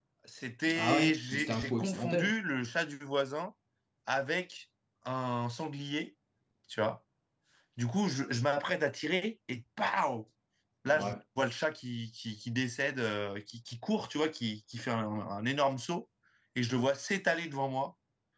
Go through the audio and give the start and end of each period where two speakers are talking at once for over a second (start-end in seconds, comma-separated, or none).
0.8-2.3